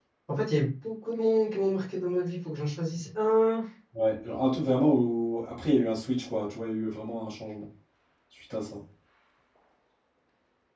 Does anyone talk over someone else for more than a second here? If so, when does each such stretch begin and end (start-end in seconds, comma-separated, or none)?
none